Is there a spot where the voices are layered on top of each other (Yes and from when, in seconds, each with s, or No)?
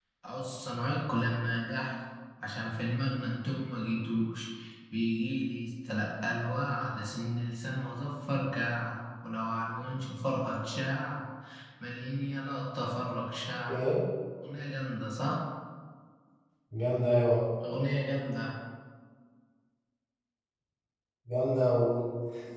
No